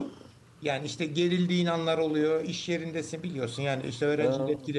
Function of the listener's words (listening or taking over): listening